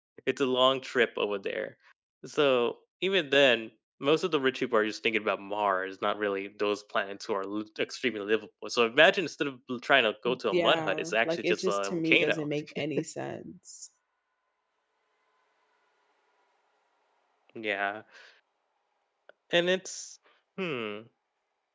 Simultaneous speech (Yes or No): Yes